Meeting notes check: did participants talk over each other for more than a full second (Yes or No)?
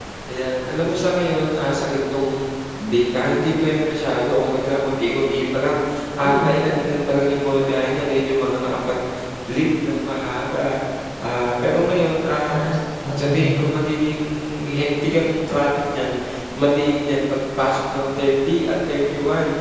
No